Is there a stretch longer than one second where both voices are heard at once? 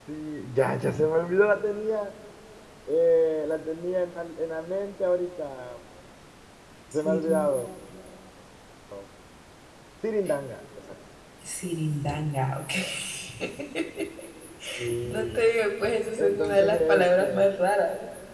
Yes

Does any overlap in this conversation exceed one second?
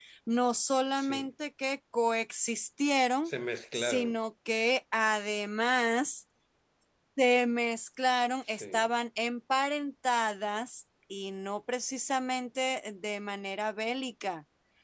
No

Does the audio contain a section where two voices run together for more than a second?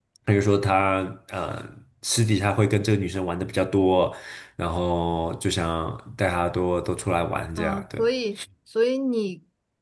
No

